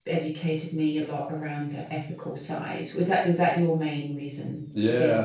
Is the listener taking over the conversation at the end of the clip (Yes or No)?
Yes